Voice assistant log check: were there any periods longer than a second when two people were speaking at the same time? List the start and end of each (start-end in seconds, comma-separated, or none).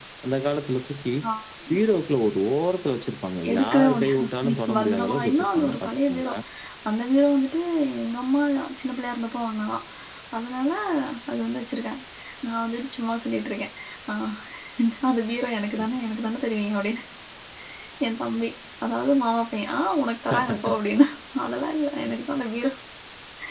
3.5-6.3